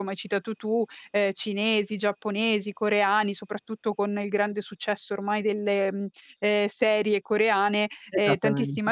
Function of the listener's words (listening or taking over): listening